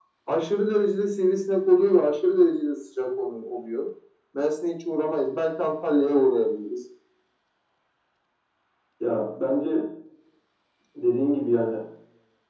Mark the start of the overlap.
none

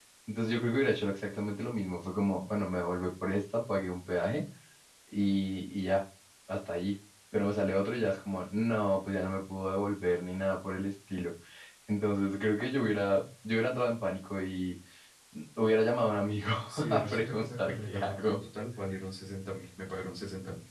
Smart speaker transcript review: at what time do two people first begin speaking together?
16.9 s

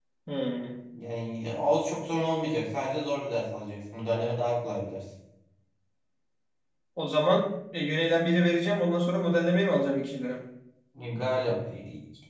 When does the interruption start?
none

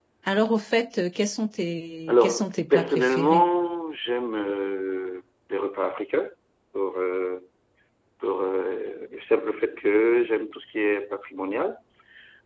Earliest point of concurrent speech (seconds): 2.1 s

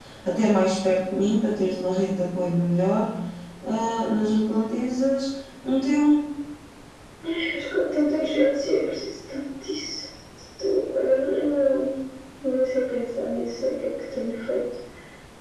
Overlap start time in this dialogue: none

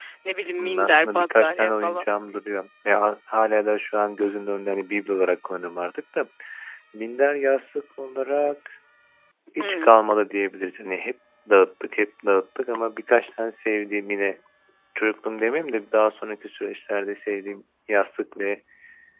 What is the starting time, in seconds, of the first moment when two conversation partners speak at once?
0.6 s

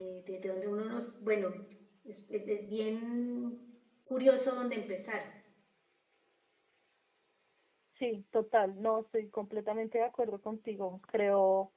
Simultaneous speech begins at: none

